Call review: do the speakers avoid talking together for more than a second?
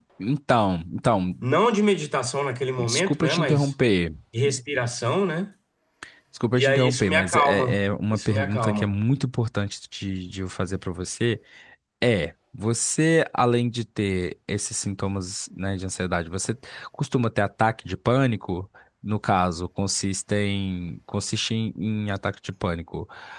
No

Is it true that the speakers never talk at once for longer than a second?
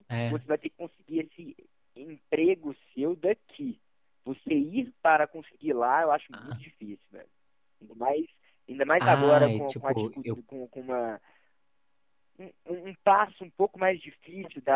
No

